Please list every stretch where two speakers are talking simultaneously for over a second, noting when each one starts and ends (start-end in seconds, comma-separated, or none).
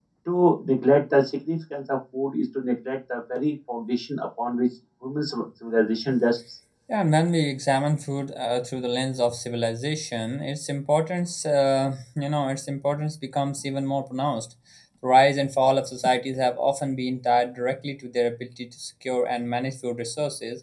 none